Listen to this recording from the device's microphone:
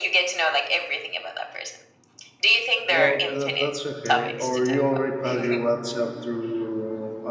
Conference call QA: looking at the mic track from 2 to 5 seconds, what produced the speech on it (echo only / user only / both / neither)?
both